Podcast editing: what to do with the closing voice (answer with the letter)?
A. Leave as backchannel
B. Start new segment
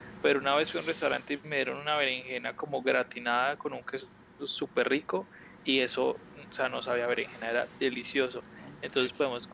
A